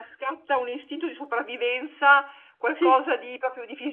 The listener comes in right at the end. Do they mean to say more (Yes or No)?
No